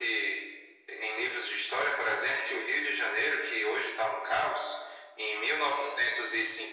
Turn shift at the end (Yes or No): No